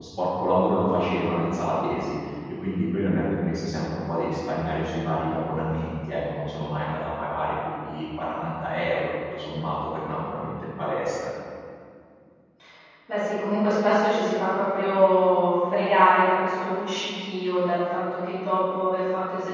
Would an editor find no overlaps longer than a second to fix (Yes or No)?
Yes